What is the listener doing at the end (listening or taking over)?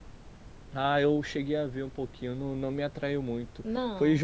listening